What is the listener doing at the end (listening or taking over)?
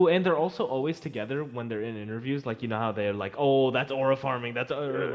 taking over